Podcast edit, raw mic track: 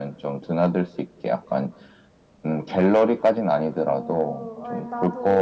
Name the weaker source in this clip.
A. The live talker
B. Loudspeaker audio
A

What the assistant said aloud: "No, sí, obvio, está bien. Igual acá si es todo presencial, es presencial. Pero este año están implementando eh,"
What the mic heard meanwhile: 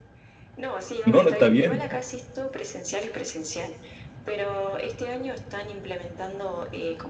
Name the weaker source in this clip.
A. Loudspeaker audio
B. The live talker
A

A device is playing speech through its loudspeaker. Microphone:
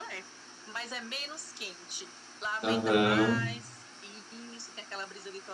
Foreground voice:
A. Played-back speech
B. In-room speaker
B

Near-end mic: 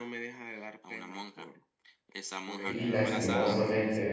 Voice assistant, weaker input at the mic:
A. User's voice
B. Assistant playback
B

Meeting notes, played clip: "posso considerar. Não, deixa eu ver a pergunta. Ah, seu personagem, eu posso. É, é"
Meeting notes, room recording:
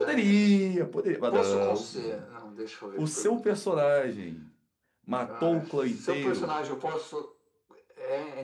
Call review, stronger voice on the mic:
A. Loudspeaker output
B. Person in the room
B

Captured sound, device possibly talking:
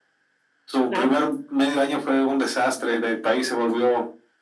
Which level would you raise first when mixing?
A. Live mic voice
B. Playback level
A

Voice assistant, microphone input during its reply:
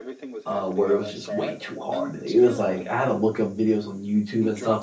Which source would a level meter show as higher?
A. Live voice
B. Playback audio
A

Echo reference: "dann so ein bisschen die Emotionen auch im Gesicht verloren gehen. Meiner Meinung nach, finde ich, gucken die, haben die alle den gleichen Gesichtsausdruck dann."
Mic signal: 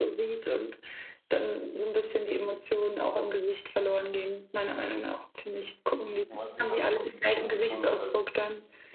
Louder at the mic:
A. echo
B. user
A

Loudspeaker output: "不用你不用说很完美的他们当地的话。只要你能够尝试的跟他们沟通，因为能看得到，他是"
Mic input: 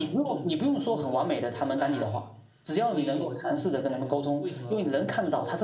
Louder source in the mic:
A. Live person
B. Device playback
B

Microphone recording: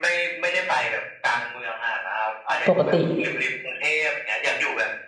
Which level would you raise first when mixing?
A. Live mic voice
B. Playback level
B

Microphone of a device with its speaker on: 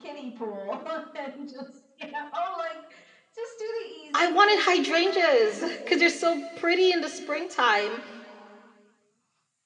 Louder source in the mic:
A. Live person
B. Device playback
A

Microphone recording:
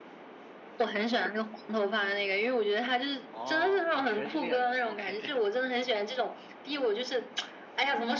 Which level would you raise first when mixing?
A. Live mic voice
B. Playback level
A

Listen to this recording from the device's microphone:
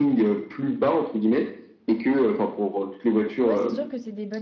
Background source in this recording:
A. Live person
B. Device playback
A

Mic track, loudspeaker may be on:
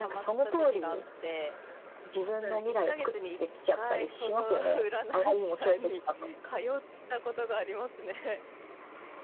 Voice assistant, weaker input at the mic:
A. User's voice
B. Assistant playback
A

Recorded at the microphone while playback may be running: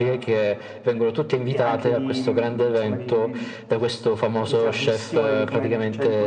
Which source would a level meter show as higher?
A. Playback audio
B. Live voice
A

